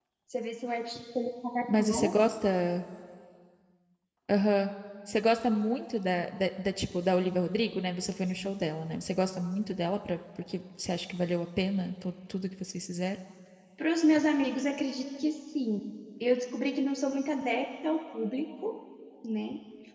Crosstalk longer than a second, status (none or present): none